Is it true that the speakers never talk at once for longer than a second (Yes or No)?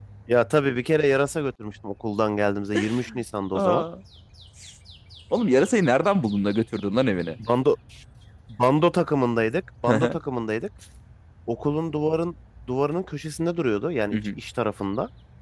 Yes